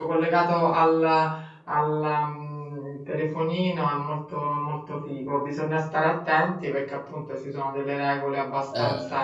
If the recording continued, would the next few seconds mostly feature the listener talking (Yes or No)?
No